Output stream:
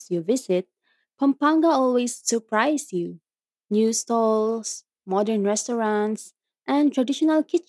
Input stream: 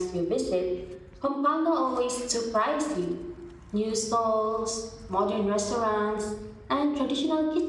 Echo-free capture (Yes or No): No